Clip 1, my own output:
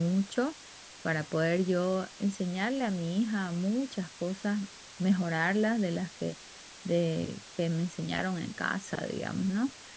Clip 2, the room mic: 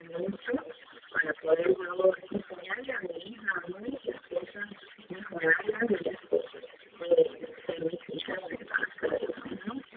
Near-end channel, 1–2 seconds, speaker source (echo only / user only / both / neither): echo only